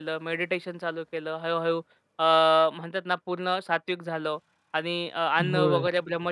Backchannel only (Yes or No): Yes